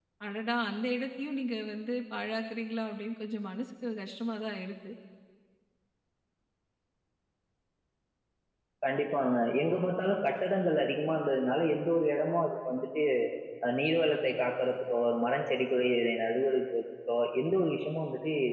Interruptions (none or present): none